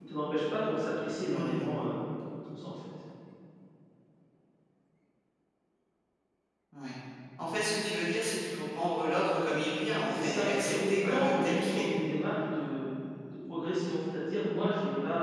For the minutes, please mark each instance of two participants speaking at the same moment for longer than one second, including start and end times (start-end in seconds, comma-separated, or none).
10.1-11.9